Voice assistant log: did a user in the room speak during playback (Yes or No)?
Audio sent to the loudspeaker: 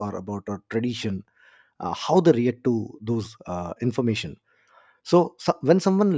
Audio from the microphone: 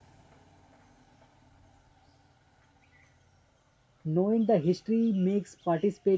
Yes